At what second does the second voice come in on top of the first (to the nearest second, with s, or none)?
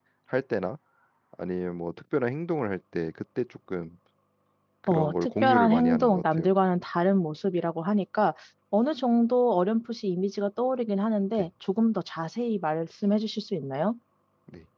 5 s